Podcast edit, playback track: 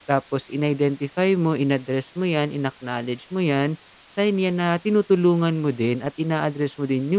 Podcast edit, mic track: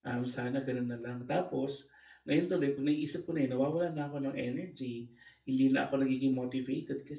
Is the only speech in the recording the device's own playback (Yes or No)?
No